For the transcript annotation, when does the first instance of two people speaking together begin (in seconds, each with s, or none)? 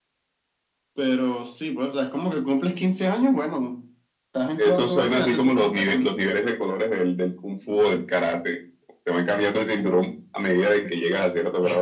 4.6 s